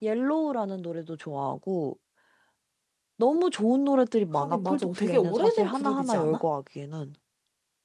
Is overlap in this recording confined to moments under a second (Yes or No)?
No